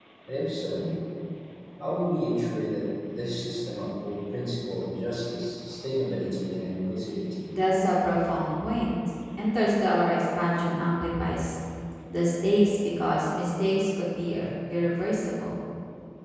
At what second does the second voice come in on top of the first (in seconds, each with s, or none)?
none